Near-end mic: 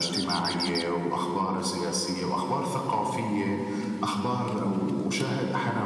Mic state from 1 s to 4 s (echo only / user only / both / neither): echo only